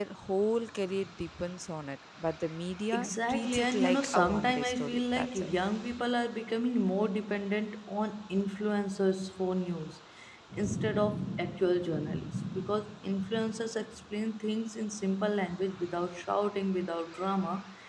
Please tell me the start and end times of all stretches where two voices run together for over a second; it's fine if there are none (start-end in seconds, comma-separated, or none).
2.9-5.5